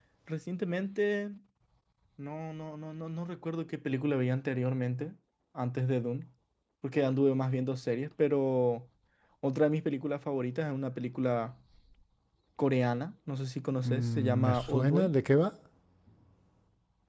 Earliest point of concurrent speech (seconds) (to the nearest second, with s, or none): 14 s